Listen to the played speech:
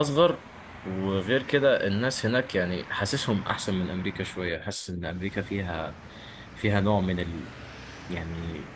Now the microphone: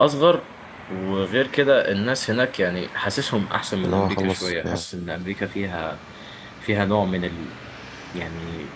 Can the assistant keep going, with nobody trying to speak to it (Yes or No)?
No